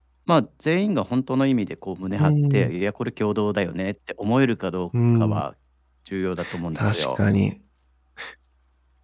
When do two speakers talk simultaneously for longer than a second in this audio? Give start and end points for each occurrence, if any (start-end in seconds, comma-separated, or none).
none